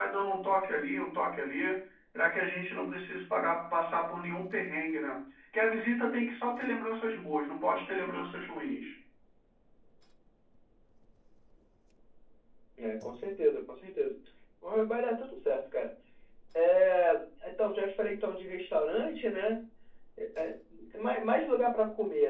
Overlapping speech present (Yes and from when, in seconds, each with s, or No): No